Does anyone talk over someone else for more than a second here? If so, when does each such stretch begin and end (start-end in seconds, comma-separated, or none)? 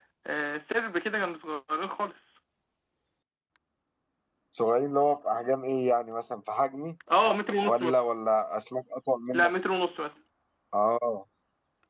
none